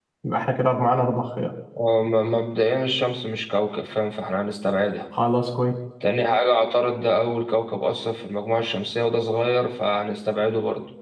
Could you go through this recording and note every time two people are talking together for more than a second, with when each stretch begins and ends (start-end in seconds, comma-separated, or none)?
none